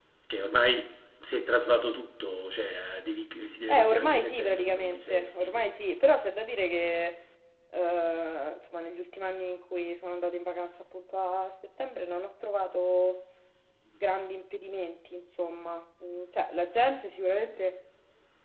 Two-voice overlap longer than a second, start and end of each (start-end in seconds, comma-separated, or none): 3.7-5.6